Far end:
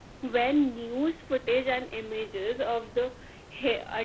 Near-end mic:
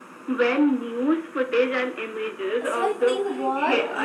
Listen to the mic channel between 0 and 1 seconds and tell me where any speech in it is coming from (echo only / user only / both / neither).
echo only